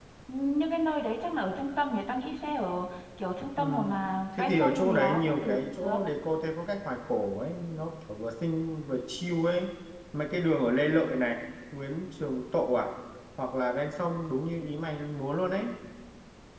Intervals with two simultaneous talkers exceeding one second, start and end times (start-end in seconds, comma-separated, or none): 4.4-5.6